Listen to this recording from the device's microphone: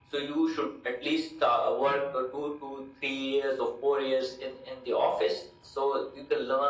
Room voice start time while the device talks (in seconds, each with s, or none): none